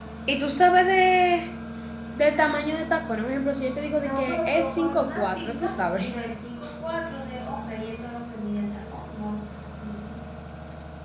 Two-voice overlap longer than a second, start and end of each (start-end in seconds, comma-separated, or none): 4.0-6.1